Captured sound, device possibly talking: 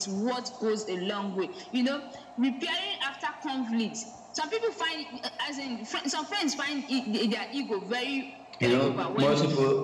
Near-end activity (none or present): present